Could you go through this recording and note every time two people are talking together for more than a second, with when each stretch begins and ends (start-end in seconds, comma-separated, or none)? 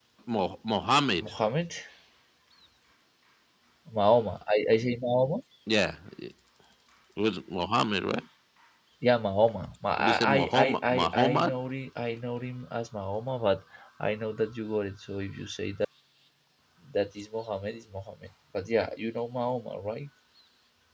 10.0-11.5